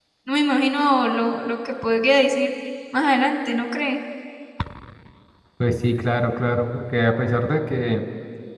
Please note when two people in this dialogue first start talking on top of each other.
none

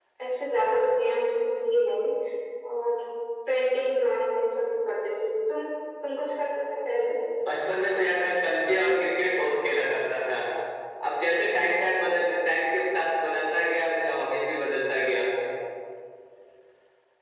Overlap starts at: none

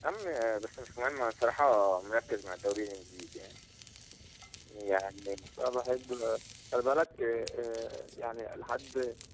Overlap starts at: none

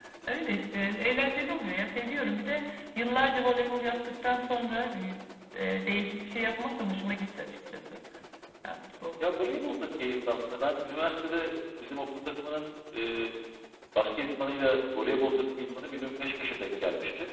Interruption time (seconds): none

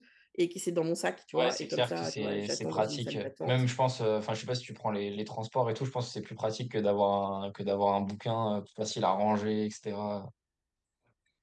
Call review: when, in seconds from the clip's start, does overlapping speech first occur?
1.3 s

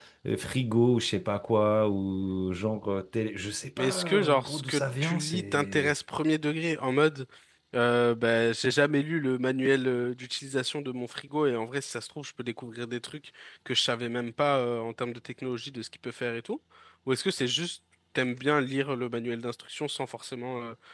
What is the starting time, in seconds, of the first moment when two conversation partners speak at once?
3.8 s

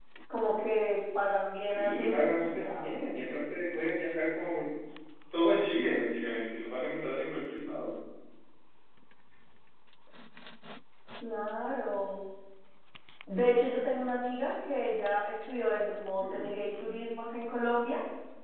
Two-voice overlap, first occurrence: 1.6 s

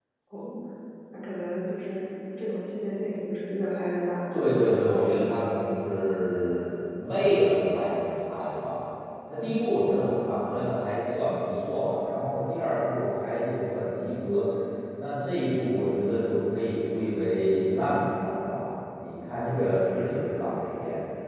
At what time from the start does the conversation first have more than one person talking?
none

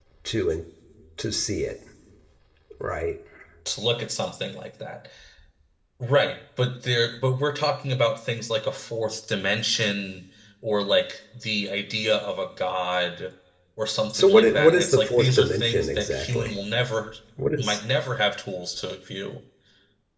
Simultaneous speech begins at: 14.1 s

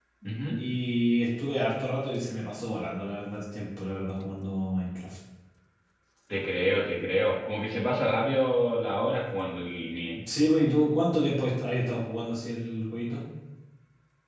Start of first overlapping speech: none

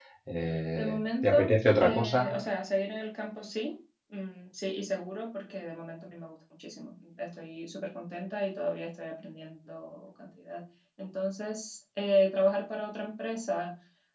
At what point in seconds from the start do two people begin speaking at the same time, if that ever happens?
0.8 s

